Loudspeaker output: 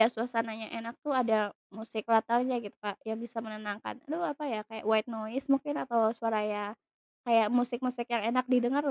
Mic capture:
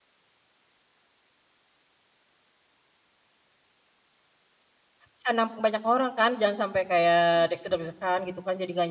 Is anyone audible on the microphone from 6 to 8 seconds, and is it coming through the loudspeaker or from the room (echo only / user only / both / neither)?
user only